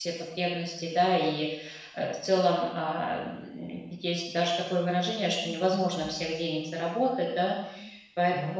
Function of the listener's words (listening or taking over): listening